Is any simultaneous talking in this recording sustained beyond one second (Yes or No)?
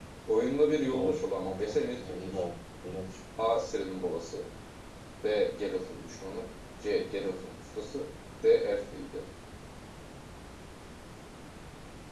Yes